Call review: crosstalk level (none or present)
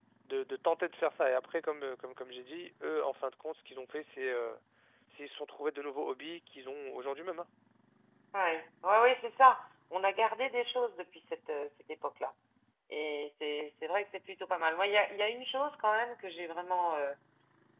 none